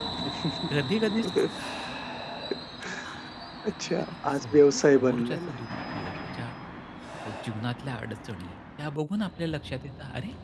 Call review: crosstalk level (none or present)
present